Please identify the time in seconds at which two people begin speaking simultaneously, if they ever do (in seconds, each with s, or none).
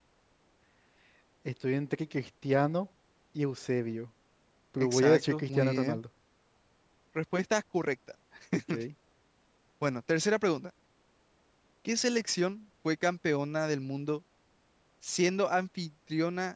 4.8 s